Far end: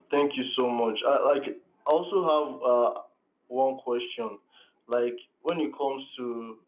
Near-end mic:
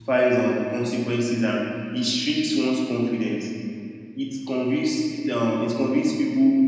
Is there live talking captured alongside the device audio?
Yes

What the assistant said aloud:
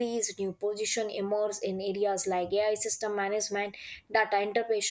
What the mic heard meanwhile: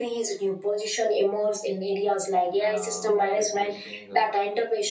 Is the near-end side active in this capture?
Yes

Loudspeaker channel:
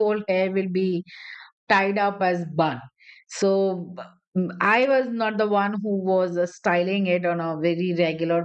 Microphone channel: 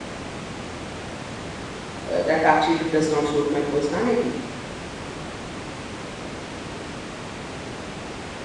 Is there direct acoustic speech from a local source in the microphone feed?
Yes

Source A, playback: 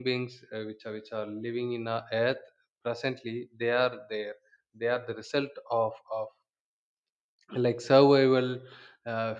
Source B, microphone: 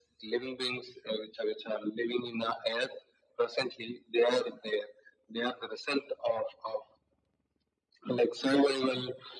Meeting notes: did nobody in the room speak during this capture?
Yes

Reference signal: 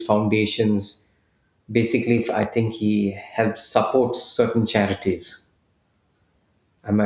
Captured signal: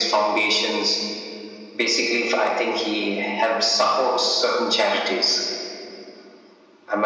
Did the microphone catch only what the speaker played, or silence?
Yes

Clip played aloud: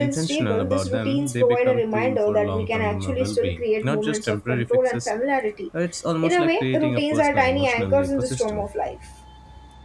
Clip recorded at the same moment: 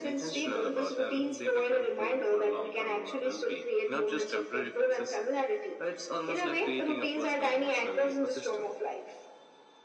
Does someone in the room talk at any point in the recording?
No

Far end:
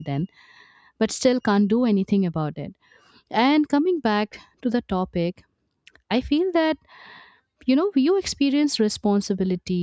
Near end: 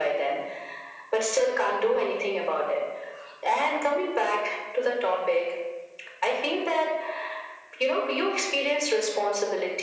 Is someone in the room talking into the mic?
No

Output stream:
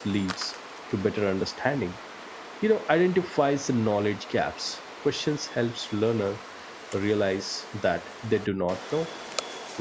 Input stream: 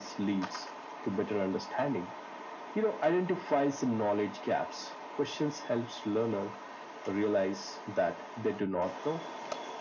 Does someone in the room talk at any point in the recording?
No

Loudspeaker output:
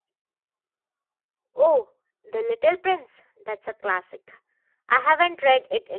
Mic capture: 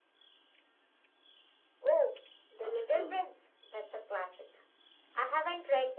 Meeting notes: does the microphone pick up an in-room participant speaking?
Yes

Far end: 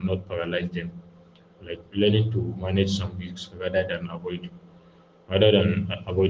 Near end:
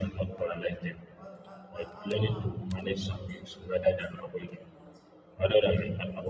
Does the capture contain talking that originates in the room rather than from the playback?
Yes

